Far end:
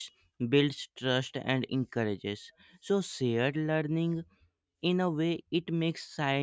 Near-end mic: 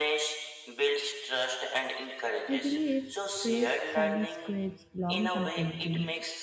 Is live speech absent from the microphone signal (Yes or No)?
No